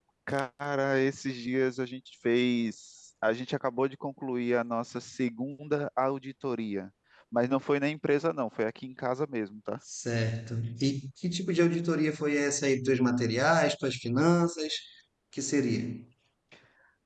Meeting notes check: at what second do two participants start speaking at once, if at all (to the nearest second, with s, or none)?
none